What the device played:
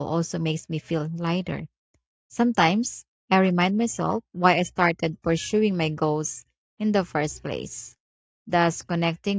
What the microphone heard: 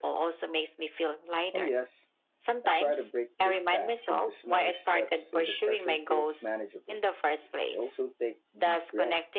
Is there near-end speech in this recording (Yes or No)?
Yes